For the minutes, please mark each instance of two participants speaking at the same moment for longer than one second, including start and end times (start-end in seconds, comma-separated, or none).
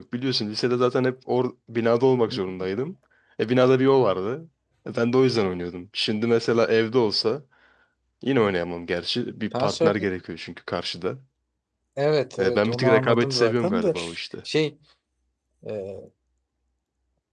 12.4-13.9